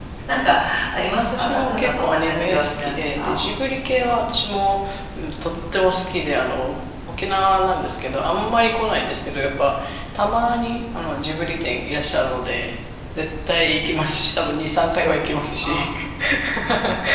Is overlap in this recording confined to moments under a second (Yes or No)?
No